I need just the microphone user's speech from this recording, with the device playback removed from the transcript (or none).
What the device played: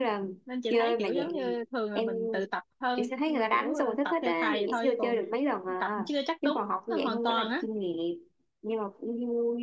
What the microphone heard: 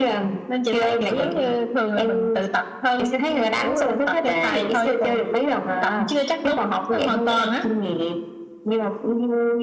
none